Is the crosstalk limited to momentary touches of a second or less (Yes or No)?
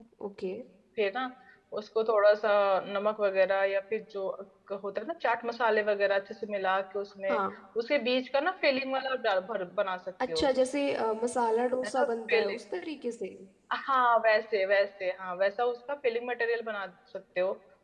Yes